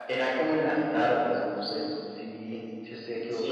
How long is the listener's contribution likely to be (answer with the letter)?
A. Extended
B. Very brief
A